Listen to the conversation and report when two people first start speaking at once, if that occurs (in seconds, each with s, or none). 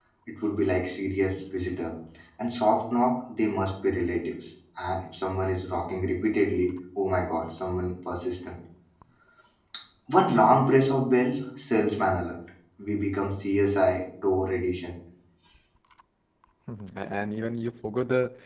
none